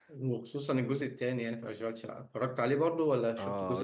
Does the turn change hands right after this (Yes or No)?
Yes